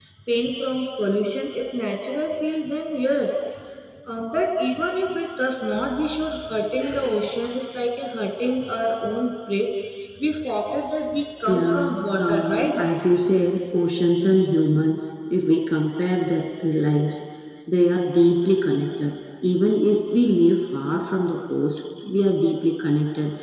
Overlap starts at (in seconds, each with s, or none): 11.5 s